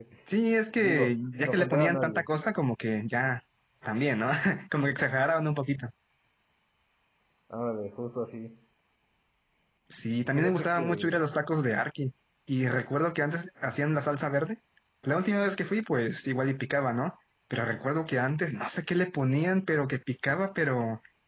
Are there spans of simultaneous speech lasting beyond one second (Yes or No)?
Yes